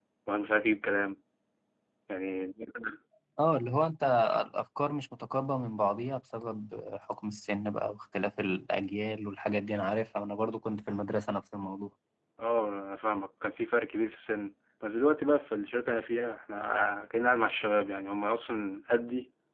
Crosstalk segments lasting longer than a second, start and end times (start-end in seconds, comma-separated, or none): none